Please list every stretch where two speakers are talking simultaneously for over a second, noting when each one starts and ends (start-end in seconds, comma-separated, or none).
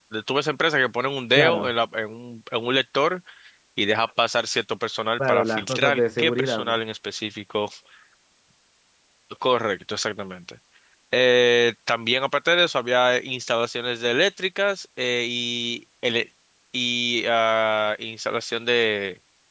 5.2-6.7